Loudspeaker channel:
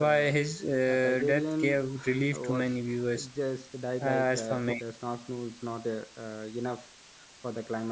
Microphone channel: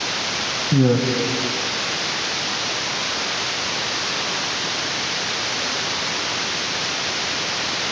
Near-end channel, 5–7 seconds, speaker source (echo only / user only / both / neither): neither